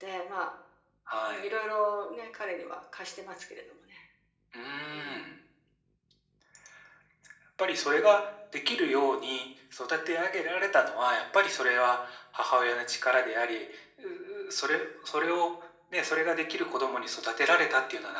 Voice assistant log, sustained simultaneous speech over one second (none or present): none